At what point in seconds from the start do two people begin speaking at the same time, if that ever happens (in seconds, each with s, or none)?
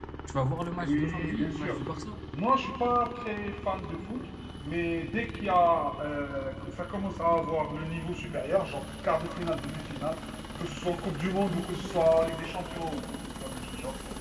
0.6 s